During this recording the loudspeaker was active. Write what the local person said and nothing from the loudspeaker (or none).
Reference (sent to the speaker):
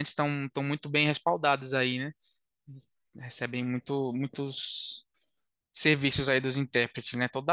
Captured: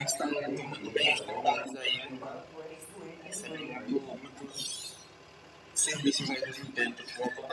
Entendi, cara, legal. No caso, tu és fluente em inglês, não é isso?